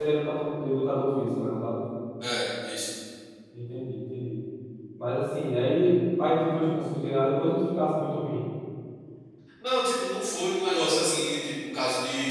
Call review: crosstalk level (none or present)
none